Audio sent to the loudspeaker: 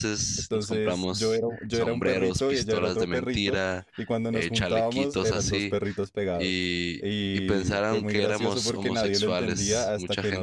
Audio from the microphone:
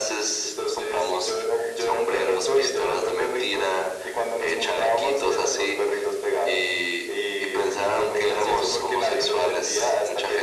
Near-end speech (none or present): none